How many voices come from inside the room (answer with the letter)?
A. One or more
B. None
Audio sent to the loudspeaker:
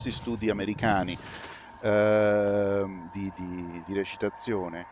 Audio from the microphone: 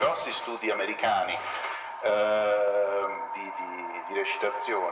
B